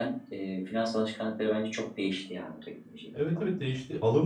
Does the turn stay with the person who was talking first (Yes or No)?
No